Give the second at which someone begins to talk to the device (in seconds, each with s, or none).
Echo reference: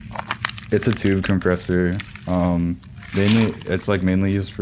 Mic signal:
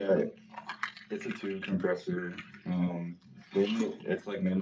none